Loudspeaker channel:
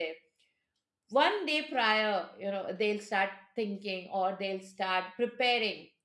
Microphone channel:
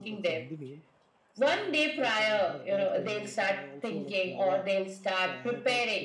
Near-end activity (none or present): present